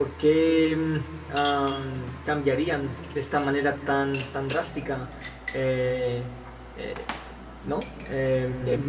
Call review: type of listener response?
taking over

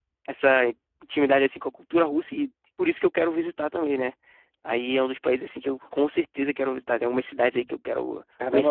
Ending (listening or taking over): taking over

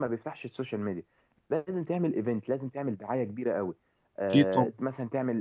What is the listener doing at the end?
listening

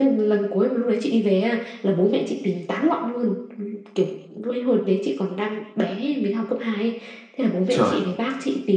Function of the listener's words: listening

